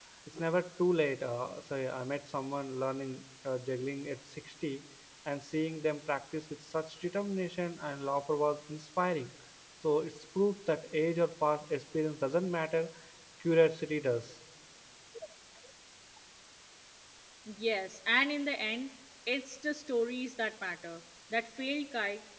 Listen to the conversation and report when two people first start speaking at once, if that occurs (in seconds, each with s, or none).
none